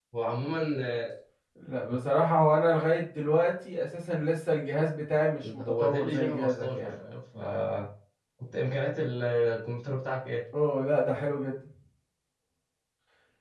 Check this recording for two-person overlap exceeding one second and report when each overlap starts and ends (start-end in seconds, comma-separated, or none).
5.6-6.9